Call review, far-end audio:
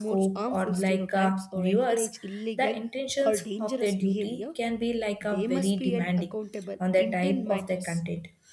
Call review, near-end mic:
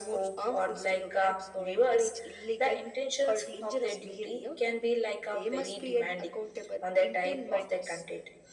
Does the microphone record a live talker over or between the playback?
No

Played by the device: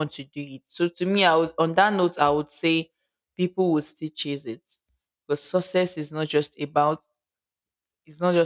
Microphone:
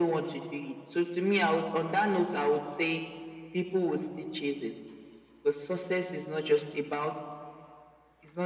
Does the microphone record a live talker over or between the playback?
No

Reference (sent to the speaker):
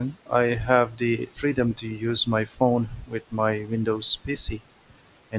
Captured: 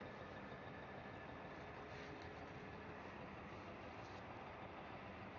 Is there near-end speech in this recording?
No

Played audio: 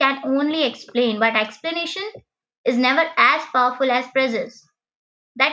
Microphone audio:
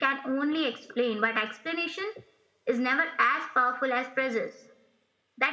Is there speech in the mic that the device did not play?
No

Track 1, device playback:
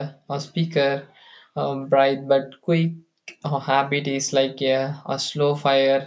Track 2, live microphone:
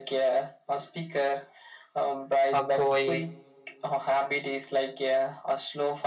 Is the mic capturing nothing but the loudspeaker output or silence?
No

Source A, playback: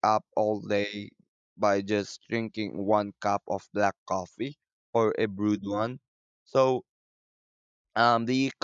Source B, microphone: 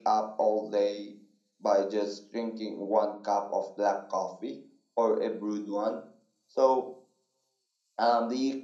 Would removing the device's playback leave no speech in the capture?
Yes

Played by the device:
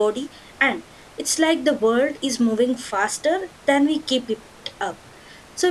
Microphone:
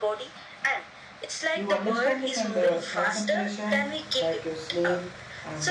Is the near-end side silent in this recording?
No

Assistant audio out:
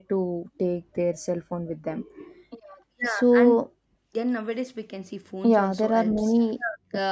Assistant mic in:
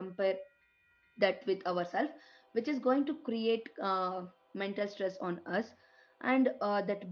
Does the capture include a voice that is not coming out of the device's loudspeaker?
Yes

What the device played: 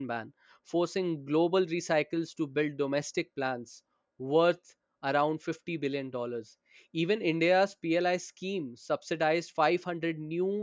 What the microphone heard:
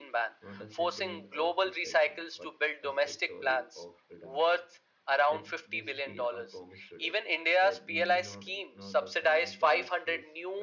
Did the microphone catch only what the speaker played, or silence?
No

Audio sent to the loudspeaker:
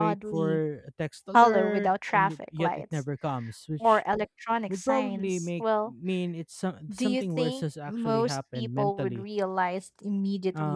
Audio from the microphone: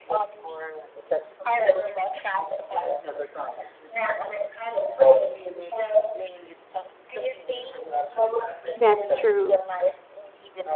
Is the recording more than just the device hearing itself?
Yes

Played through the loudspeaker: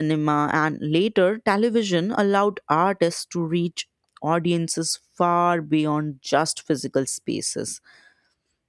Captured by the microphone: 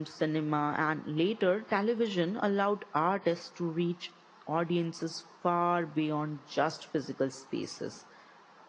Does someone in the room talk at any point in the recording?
No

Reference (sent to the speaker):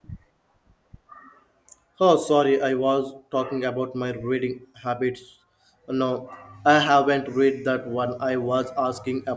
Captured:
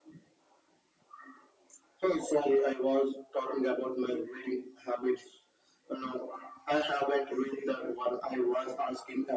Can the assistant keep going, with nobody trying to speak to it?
Yes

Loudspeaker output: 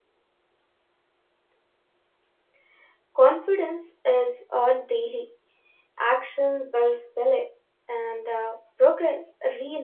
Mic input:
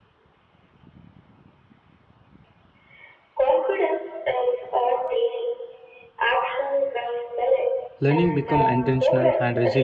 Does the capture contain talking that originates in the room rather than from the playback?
Yes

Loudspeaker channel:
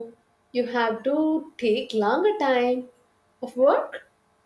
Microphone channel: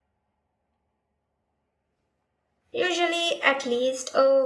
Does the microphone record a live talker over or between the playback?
Yes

